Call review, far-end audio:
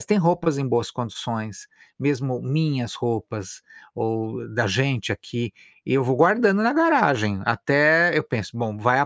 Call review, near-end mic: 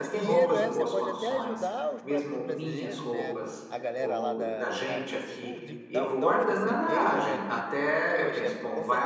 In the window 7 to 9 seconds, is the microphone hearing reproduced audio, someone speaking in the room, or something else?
both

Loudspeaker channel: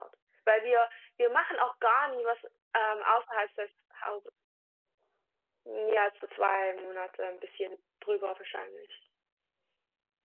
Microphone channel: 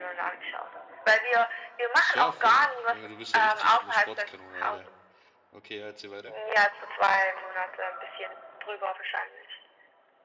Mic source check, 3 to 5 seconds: both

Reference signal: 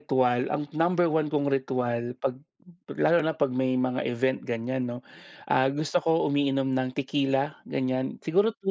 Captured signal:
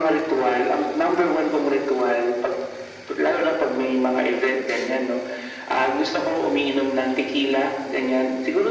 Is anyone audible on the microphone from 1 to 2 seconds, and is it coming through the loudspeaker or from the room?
echo only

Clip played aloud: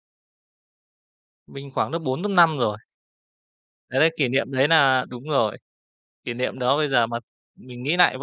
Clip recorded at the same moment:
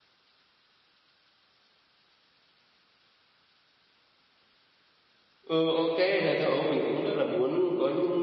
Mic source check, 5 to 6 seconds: user only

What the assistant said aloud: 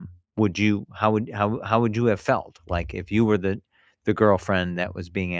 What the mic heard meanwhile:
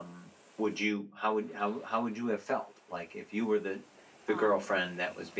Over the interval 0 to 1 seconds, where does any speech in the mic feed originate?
echo only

